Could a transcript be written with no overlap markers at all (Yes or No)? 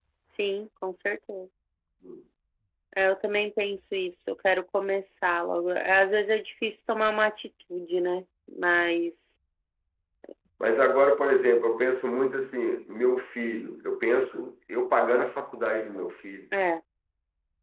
Yes